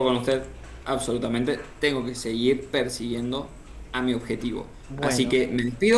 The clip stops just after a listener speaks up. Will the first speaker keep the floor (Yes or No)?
Yes